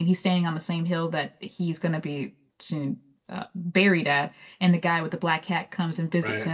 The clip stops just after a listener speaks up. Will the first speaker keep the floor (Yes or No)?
Yes